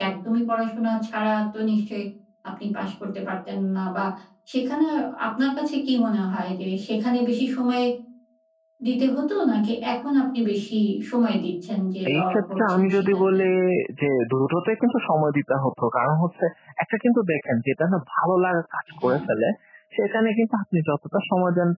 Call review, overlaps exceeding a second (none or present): present